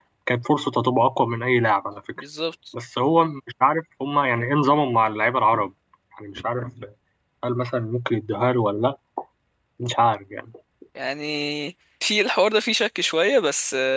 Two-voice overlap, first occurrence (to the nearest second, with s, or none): none